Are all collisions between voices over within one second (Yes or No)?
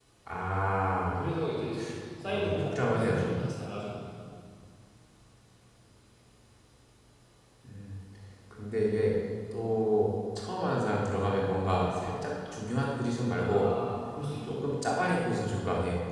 No